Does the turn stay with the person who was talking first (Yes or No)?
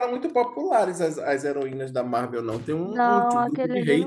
No